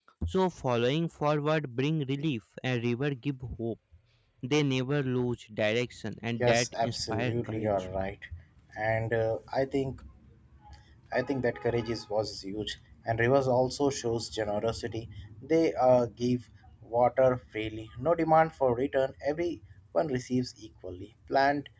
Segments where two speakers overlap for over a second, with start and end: 6.4-7.7

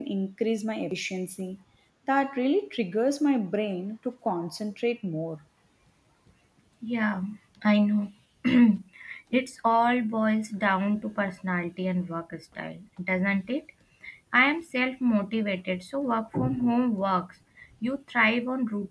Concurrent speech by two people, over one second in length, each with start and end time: none

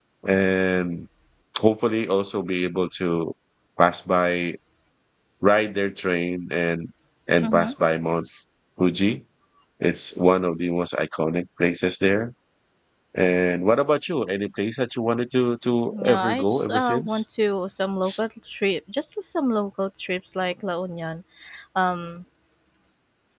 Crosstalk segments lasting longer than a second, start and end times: 15.9-17.2

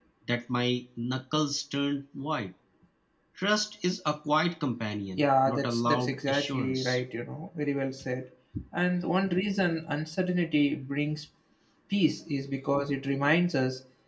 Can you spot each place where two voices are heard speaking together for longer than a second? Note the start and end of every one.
5.2-7.0

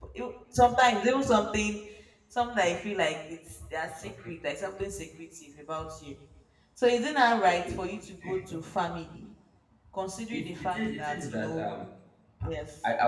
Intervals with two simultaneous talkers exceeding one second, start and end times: 10.3-11.7

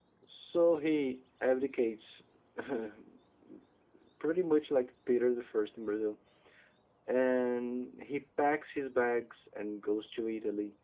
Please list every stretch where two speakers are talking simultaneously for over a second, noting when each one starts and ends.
none

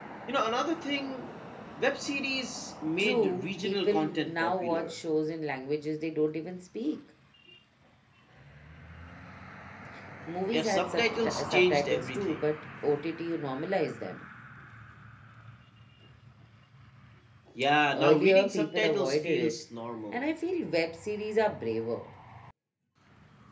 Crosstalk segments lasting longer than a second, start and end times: 3.0-4.9, 10.5-12.4, 17.9-19.5

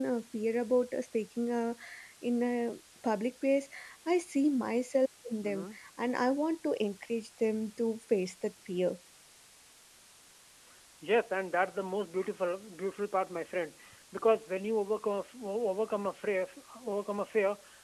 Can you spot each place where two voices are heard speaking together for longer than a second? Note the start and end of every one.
none

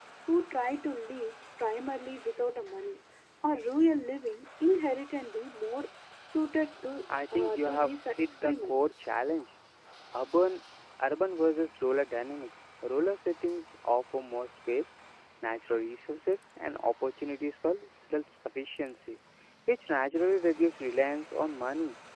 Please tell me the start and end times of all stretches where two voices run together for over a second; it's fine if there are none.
7.3-8.8

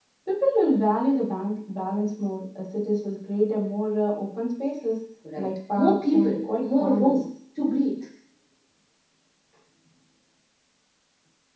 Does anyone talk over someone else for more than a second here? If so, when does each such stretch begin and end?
5.4-7.2

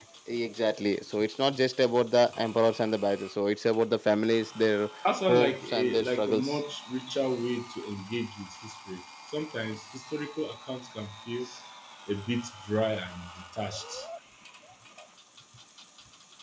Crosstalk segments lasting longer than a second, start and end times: 5.3-6.6

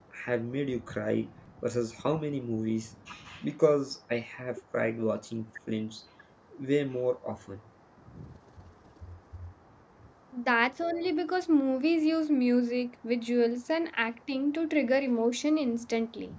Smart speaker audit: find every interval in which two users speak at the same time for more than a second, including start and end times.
none

